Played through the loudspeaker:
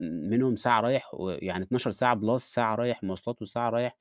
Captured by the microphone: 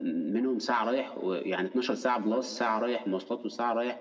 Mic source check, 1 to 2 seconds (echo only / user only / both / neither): echo only